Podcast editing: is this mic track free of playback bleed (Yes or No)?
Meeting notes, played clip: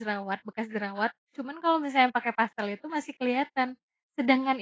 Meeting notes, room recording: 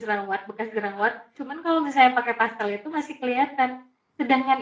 No